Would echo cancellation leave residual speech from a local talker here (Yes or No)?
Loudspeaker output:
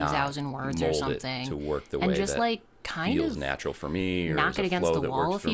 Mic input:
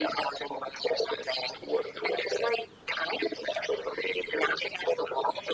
No